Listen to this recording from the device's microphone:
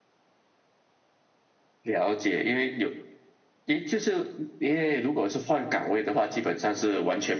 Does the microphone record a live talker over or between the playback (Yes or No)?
No